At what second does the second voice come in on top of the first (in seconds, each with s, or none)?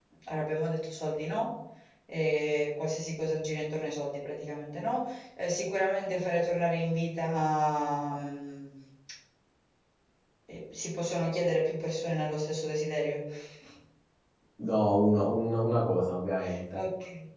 none